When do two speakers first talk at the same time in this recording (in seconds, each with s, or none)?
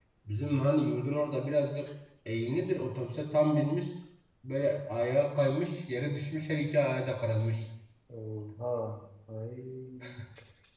none